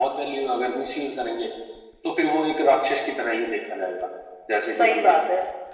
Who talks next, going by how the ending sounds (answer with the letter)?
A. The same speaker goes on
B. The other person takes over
B